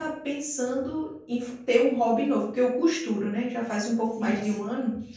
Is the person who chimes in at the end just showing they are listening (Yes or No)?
Yes